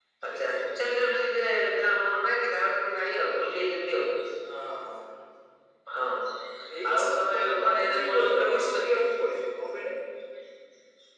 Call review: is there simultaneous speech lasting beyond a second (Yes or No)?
Yes